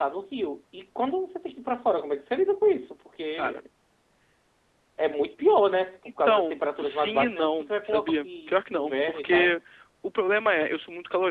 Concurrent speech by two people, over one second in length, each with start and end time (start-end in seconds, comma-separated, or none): 6.2-9.6